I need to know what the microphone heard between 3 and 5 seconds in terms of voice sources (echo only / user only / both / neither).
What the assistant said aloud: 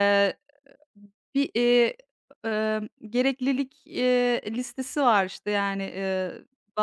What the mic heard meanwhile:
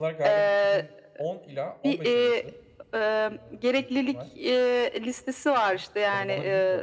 both